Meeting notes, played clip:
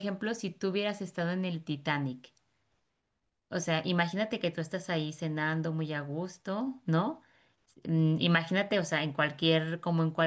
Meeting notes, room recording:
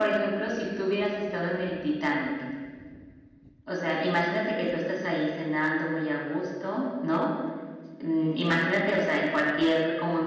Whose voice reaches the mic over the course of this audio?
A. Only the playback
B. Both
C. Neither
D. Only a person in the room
A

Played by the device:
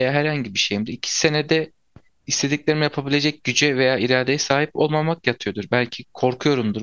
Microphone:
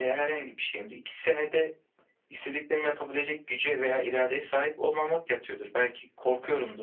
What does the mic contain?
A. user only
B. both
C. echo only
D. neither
C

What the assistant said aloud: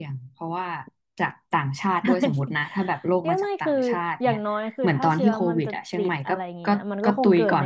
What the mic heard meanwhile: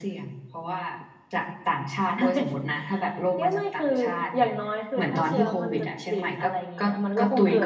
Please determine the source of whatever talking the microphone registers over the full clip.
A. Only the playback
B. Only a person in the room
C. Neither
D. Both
A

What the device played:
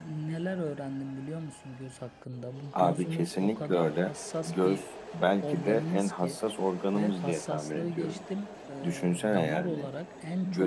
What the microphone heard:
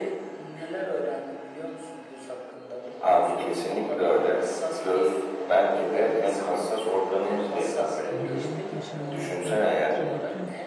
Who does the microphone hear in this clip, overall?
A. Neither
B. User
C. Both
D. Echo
C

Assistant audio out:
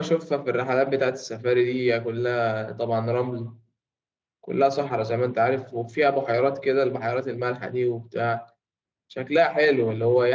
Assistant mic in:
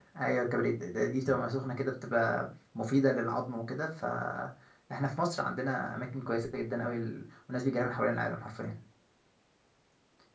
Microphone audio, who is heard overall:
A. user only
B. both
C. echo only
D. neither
A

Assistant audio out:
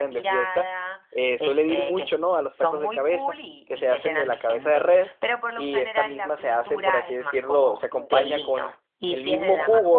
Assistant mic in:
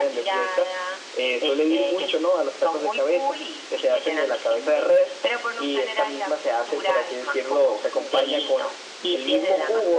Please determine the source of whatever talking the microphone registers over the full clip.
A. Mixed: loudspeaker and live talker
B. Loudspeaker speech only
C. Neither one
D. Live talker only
B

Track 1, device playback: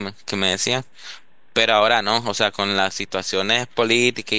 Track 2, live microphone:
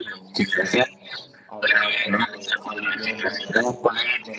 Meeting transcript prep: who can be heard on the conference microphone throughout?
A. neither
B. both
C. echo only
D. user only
B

